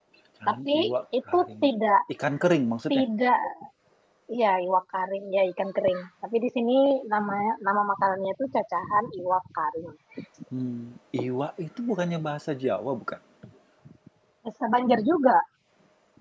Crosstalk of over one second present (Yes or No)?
No